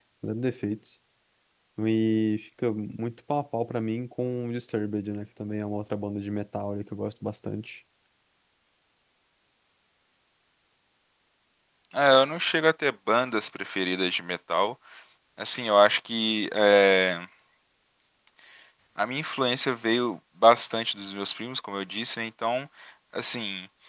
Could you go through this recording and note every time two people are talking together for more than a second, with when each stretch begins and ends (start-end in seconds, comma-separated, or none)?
none